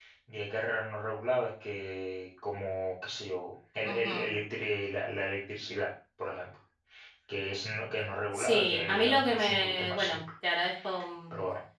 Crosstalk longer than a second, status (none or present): present